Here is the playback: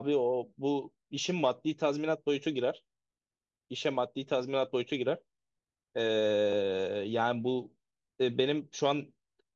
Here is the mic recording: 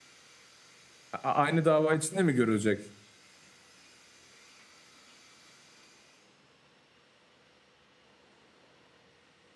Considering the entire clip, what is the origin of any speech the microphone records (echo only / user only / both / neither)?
user only